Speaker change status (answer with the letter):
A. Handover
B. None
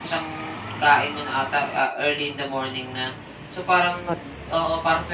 B